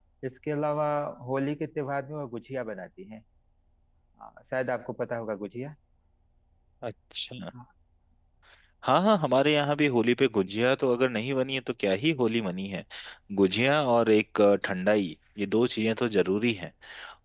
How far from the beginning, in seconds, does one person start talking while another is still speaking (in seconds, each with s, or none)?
none